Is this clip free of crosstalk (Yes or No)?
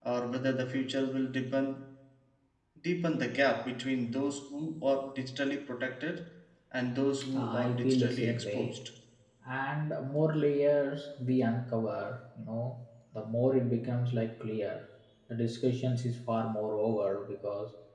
No